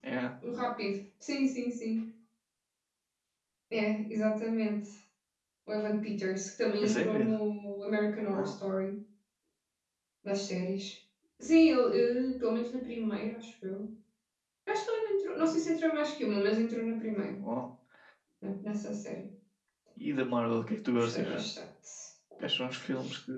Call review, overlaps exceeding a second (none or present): none